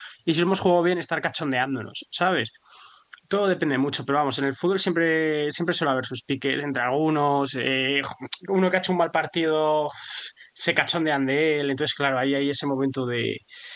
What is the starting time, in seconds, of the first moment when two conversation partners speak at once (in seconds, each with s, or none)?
none